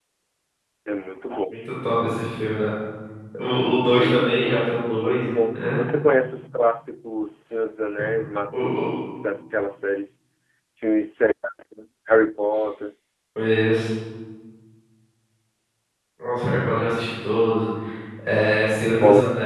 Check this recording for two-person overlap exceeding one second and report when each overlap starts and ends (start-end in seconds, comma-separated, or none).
4.0-5.8